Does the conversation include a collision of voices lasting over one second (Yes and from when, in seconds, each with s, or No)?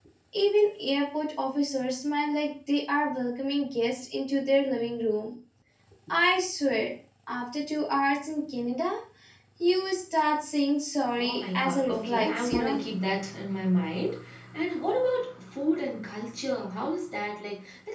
Yes, from 11.2 s